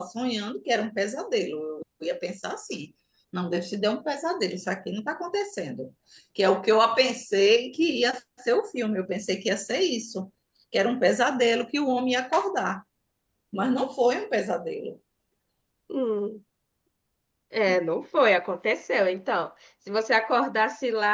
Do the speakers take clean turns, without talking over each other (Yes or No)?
Yes